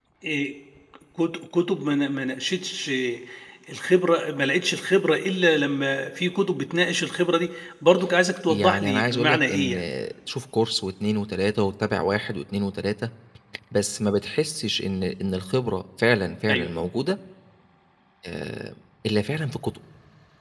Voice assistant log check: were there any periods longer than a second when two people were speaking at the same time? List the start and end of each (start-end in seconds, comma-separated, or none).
8.5-9.8